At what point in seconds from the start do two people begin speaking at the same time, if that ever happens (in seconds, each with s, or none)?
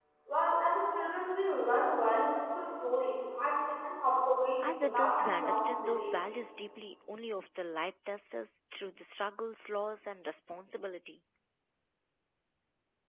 4.6 s